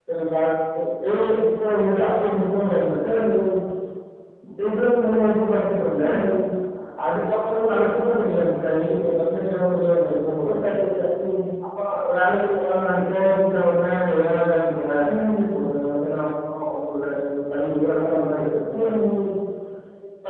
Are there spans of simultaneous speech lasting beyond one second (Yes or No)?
No